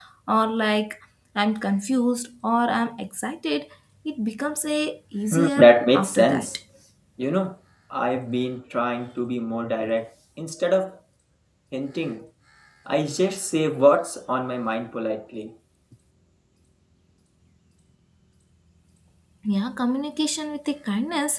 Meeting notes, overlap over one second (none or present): present